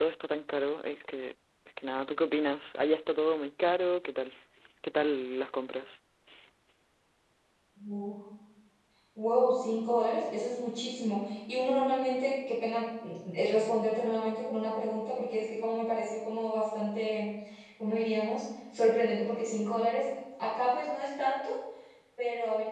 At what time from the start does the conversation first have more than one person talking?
none

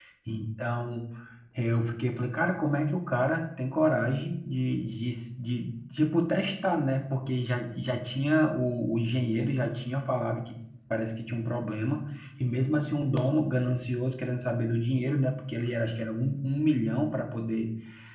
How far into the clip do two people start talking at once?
none

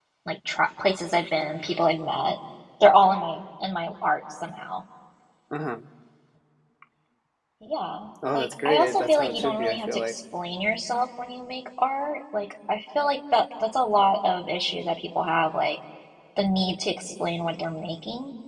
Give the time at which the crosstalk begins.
8 s

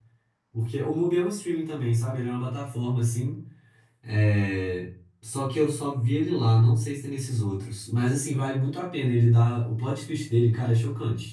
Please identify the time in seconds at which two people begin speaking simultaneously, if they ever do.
none

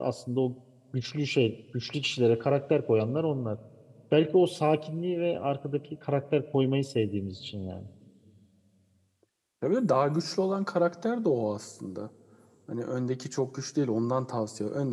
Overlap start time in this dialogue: none

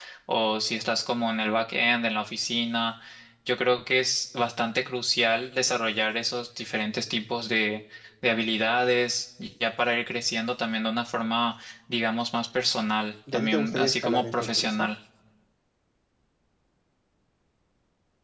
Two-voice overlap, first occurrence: 13 s

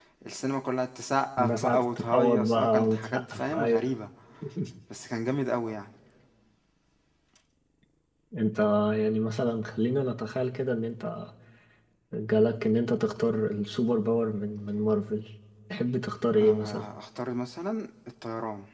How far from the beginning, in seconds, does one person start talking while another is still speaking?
1 s

